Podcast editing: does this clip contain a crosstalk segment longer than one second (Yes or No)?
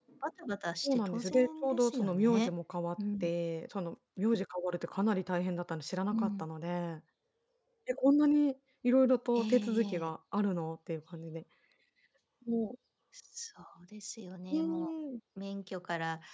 Yes